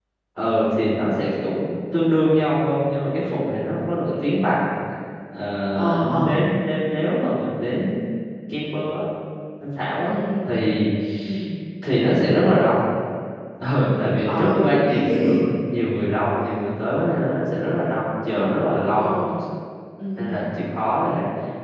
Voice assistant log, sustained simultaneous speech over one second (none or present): present